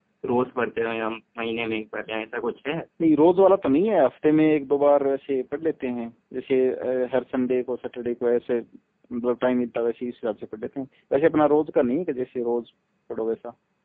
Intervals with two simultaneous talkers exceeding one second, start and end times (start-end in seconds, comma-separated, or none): none